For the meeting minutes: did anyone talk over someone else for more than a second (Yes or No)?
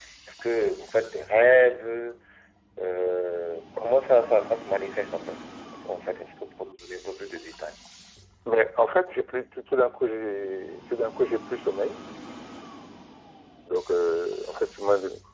No